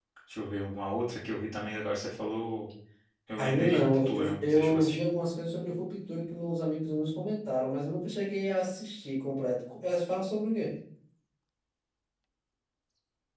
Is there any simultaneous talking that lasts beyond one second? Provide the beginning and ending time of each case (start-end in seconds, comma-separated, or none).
3.4-5.0